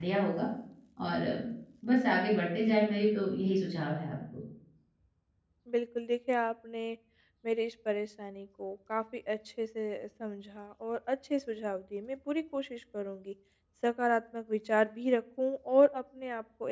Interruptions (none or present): none